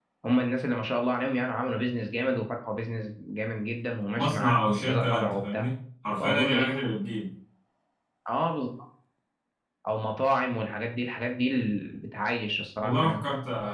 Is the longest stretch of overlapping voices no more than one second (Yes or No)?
No